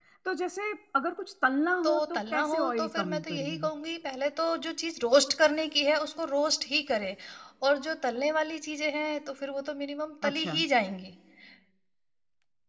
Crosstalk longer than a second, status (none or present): present